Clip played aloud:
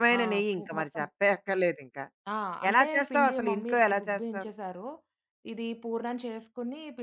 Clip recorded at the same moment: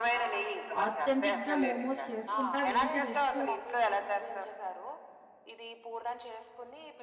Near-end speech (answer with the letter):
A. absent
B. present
B